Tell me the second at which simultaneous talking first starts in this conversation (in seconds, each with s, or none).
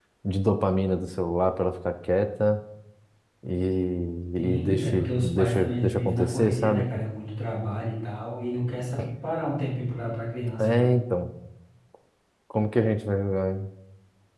4.4 s